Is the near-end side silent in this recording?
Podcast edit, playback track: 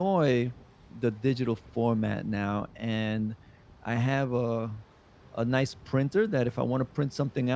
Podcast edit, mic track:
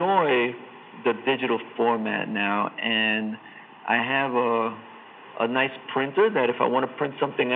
Yes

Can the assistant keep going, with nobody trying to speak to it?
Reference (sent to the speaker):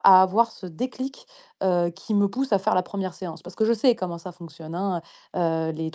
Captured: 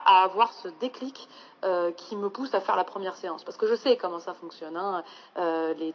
Yes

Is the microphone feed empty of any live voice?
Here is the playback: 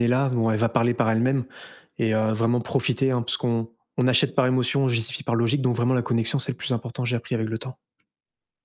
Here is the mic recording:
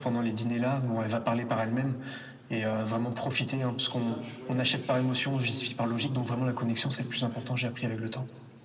No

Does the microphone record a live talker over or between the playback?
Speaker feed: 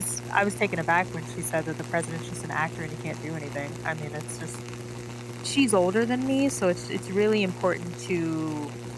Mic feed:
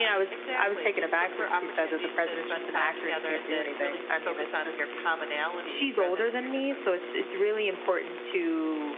Yes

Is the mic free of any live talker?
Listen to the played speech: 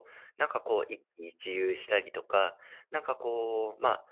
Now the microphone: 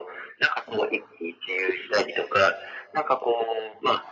Yes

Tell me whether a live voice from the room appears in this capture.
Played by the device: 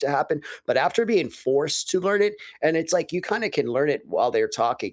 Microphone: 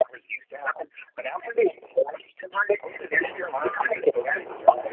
Yes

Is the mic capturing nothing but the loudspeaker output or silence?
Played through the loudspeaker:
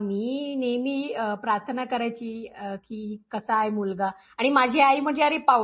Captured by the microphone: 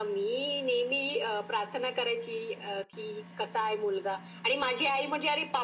Yes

